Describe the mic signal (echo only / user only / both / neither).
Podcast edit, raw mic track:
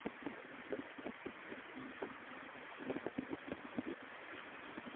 neither